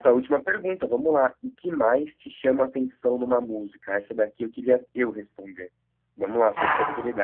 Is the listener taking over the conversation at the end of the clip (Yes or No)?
No